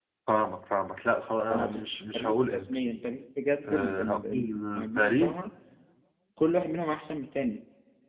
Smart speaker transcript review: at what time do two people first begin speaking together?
2 s

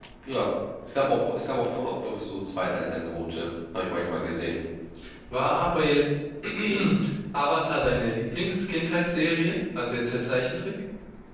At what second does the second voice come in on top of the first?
none

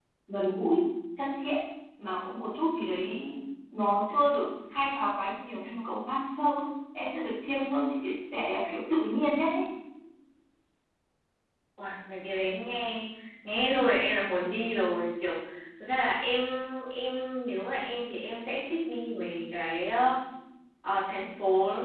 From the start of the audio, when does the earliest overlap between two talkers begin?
none

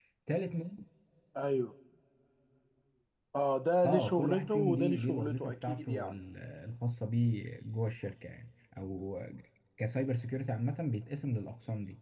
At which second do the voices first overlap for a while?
4 s

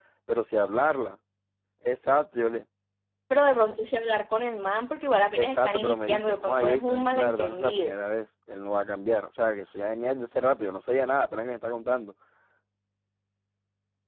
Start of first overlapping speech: 5 s

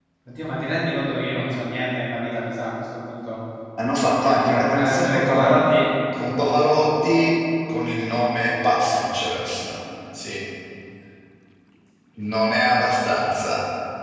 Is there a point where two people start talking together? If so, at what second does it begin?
4 s

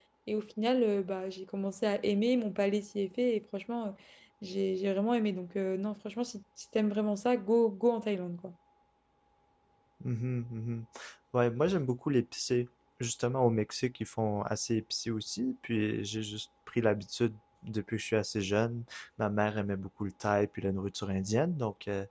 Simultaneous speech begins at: none

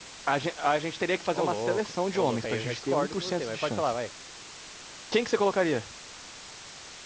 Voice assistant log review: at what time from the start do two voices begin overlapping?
1 s

